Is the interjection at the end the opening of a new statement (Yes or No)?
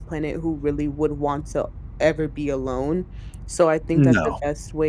No